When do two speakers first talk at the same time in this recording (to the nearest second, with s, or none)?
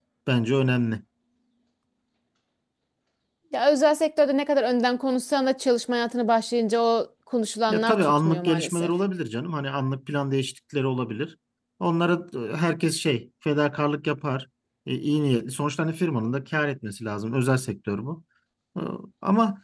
8 s